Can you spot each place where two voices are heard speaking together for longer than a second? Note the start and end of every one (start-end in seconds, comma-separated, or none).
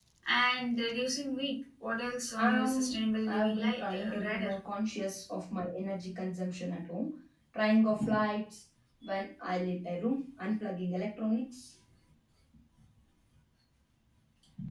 2.4-4.5